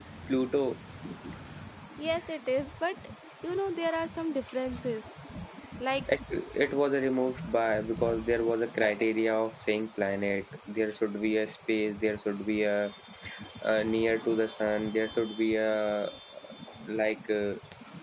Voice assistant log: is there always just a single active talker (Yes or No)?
Yes